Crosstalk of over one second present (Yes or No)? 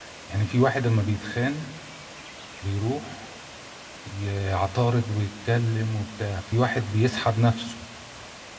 No